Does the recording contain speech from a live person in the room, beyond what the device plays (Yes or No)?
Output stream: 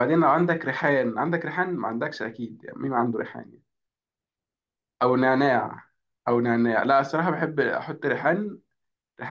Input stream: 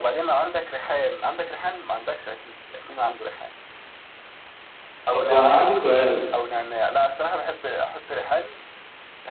Yes